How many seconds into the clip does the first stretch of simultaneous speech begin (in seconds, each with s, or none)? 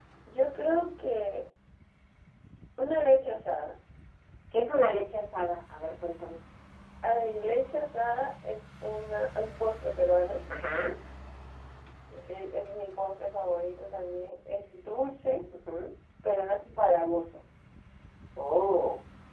none